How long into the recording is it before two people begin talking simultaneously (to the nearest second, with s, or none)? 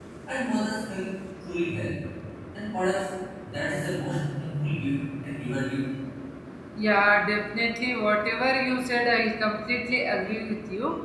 none